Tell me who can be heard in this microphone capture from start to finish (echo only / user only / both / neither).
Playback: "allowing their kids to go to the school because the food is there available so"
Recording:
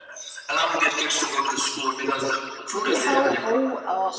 both